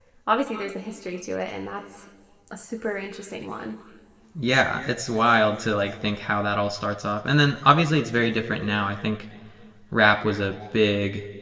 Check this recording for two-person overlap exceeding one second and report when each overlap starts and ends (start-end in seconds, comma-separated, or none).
none